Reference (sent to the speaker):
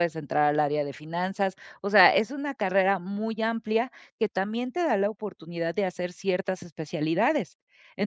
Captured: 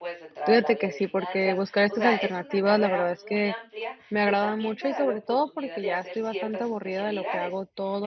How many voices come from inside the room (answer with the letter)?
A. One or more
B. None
A